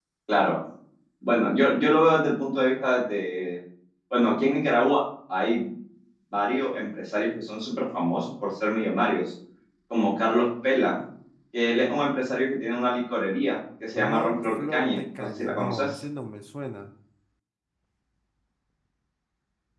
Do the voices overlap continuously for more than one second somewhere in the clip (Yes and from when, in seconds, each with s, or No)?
Yes, from 14.0 s